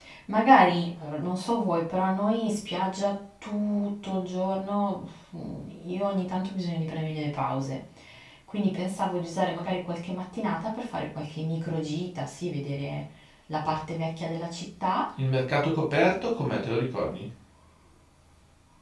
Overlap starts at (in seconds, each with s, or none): none